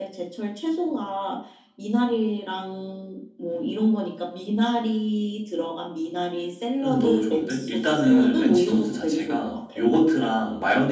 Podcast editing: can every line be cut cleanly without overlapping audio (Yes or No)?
No